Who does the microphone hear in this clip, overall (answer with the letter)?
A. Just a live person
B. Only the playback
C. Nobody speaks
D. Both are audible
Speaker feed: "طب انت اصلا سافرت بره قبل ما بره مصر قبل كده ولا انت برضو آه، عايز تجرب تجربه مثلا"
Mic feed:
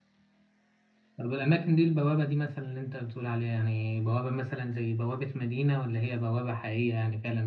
A